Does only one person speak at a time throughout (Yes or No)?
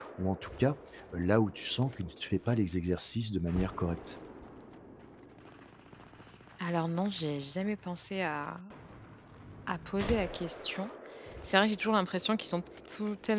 Yes